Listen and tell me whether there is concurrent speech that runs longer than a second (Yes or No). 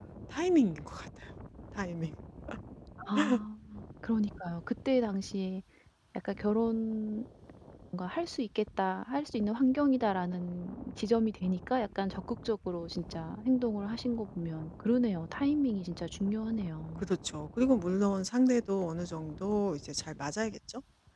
No